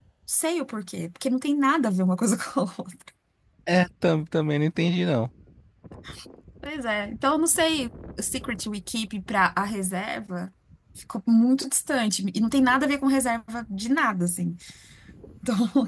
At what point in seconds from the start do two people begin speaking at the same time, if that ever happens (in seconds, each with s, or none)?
none